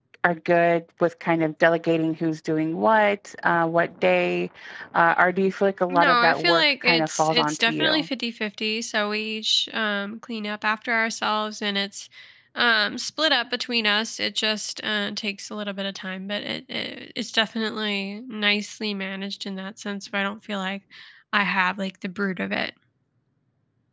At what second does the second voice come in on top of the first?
5.9 s

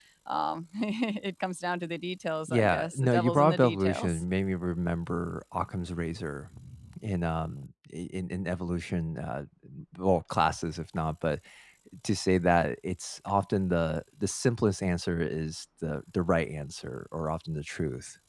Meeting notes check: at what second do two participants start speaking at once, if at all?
2.5 s

